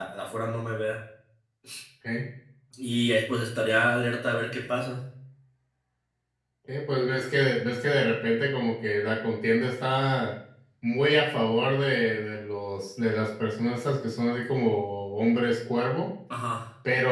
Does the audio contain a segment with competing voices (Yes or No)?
No